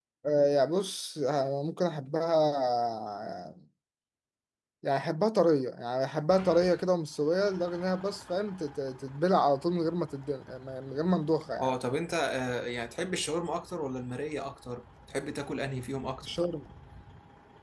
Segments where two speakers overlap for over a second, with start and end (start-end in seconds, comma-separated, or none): none